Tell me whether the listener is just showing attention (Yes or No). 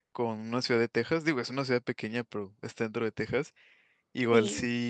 Yes